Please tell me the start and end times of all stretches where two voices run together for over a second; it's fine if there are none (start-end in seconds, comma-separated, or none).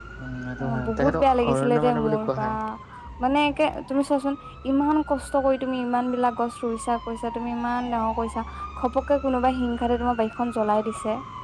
0.6-2.5